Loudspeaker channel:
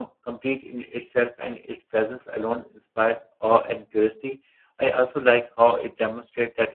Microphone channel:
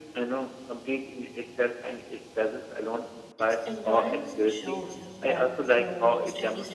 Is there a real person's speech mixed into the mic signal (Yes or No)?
Yes